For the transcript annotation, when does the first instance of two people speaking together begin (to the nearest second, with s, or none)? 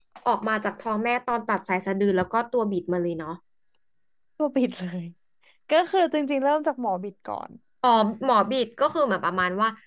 none